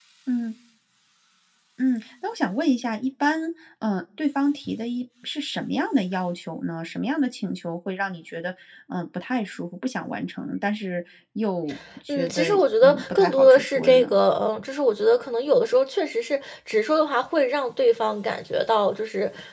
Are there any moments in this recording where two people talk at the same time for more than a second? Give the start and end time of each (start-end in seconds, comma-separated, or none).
12.1-14.2